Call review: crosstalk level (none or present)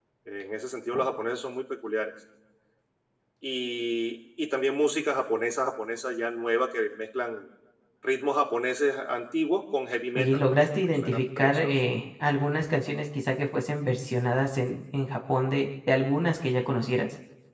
present